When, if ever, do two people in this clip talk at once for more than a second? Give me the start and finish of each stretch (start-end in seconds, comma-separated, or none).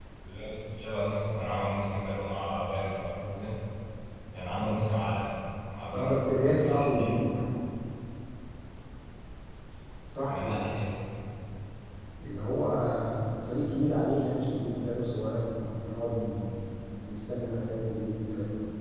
5.9-7.2